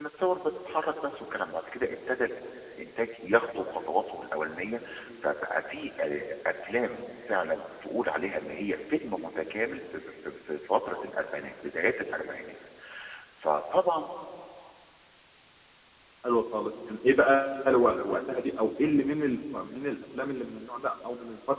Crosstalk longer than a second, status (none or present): none